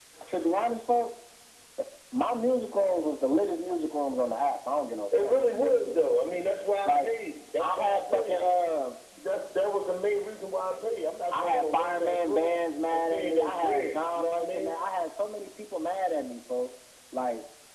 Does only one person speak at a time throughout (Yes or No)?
No